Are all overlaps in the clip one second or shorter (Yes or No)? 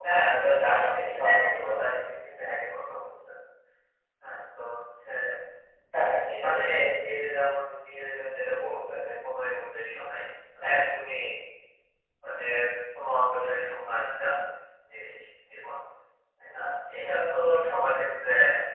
No